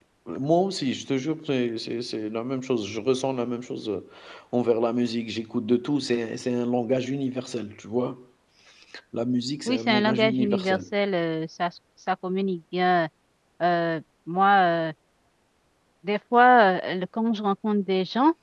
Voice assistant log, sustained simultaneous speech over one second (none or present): present